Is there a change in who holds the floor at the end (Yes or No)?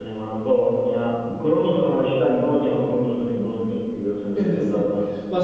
Yes